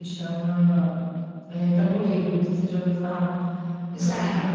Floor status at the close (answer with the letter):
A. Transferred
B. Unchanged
B